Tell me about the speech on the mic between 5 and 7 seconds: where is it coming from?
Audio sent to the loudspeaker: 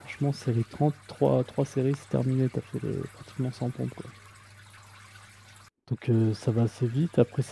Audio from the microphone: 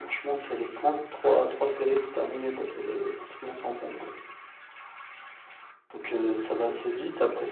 echo only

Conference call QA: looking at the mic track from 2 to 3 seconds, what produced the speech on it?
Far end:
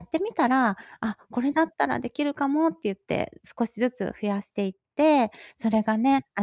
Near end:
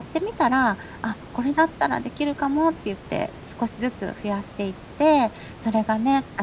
echo only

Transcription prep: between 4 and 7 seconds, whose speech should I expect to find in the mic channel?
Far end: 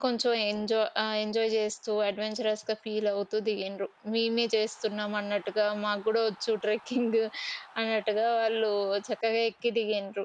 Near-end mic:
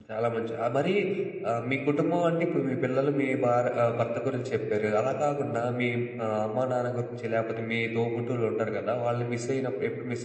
user only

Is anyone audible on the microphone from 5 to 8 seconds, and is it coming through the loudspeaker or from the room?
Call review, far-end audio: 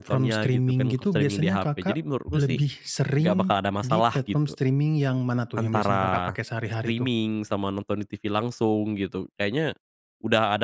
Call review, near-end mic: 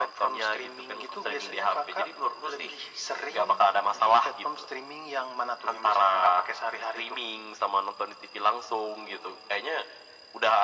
echo only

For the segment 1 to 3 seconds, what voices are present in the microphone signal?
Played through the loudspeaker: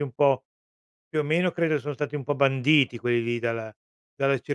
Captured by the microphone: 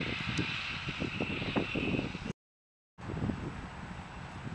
neither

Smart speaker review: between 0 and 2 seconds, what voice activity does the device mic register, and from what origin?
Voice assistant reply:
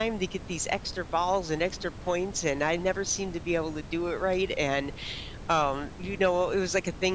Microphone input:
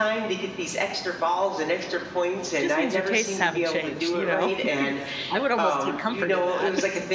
echo only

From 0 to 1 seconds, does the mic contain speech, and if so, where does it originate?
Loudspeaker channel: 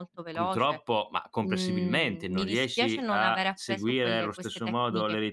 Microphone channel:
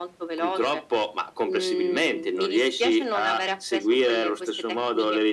echo only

